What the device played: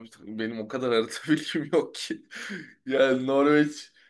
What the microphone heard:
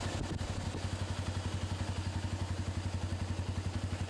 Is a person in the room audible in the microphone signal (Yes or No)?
No